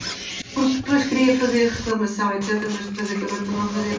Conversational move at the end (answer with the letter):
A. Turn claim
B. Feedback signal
B